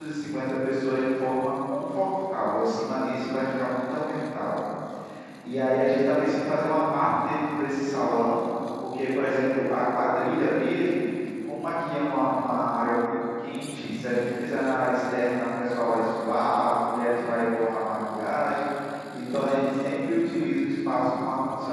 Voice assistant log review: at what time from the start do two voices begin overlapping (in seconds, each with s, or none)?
none